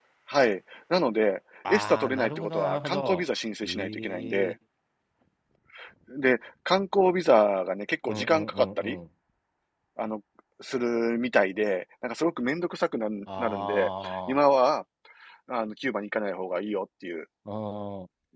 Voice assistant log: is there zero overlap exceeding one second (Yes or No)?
No